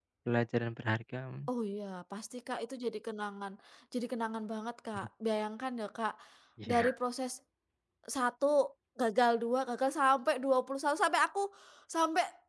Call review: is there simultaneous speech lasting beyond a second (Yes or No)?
No